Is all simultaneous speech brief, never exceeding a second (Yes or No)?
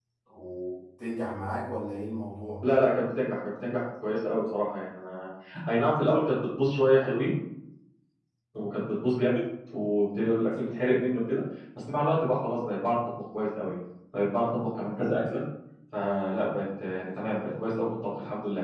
Yes